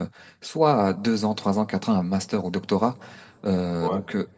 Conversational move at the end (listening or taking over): listening